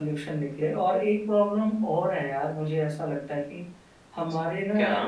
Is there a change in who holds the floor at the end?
No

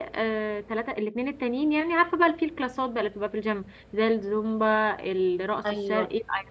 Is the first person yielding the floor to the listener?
Yes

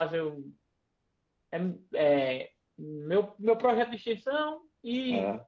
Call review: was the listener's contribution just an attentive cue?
Yes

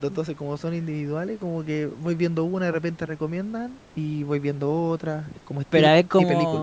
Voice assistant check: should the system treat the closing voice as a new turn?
Yes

